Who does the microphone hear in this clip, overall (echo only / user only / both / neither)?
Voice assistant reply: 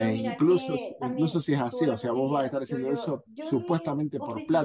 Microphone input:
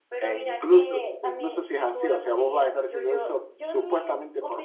echo only